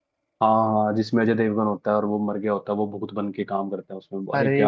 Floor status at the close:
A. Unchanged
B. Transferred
B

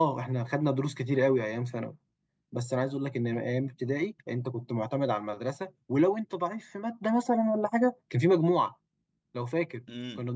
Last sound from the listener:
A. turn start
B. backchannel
A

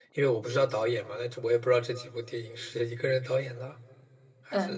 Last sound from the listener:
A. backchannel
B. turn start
B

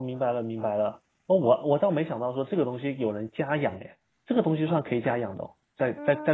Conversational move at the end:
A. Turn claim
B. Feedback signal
A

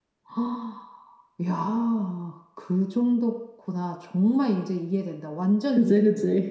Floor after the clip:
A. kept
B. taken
B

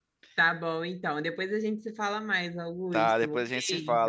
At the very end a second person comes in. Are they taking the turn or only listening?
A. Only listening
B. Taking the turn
B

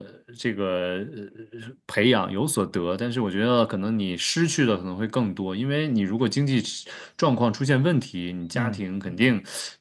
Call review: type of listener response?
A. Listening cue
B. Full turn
A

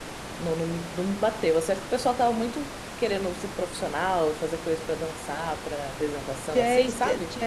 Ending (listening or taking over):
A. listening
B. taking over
B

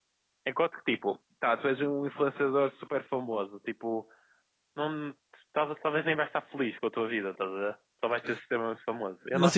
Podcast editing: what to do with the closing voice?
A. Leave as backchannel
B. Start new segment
B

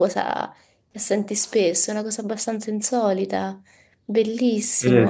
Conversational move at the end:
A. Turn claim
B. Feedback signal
A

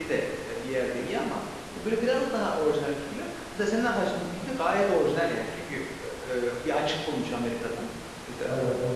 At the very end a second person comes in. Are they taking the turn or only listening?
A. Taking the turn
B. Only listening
B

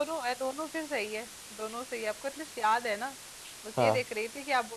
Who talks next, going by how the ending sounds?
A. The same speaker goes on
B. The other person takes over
A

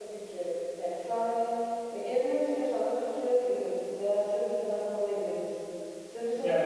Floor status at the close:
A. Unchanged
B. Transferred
A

